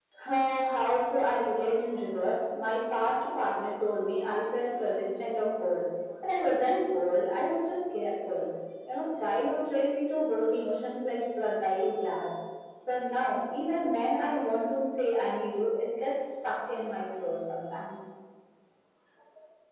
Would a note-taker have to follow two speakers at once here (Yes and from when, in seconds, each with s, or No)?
No